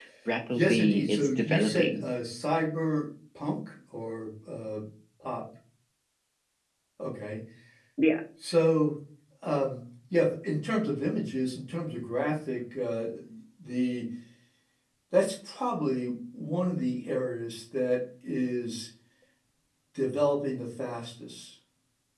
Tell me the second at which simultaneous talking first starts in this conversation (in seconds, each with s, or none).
0.6 s